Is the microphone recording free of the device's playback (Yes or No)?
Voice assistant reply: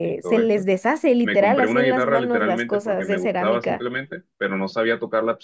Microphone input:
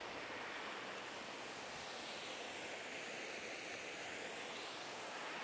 Yes